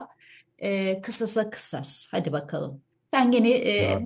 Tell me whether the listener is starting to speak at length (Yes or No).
No